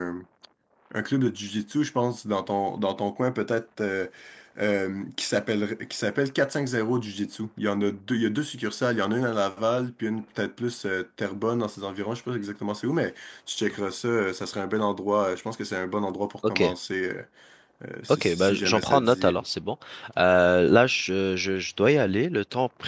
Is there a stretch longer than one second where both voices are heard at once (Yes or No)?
Yes